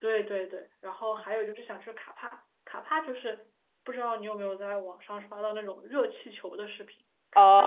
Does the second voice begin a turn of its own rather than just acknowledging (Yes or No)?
Yes